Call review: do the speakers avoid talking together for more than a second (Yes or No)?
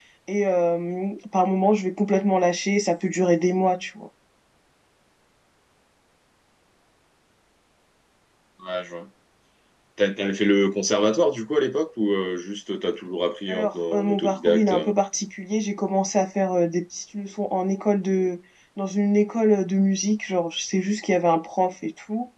No